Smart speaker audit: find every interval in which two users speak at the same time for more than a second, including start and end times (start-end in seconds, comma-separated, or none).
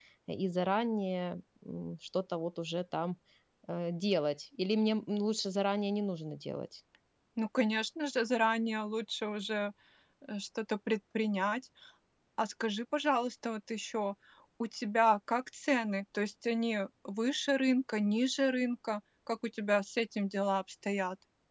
none